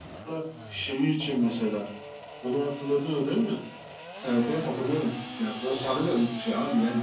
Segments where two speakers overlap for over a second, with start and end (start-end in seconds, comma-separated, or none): none